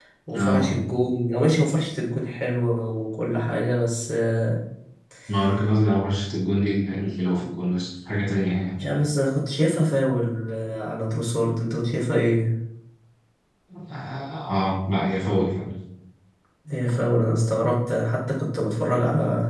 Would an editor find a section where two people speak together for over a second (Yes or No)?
No